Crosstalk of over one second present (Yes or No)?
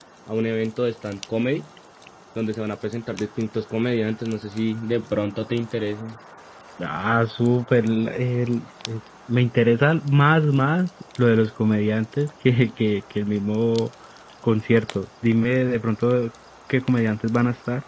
No